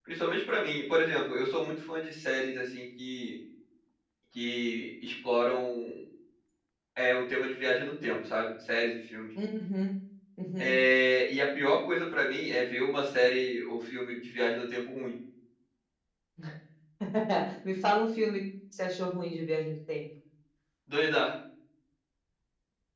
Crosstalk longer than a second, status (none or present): none